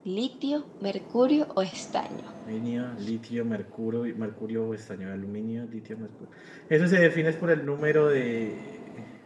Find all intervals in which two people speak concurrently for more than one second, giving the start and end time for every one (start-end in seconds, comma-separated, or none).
none